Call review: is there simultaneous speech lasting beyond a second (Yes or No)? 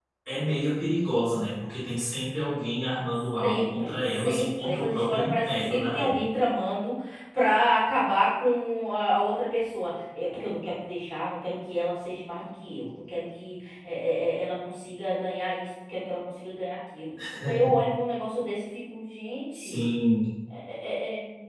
Yes